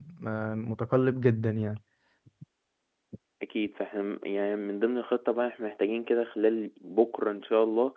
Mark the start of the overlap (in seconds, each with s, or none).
none